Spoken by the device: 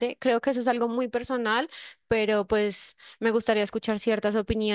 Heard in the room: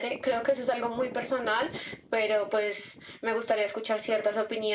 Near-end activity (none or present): none